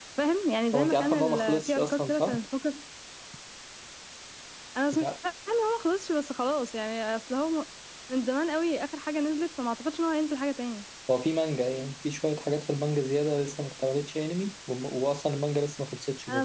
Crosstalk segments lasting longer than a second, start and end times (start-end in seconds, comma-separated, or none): 0.8-2.4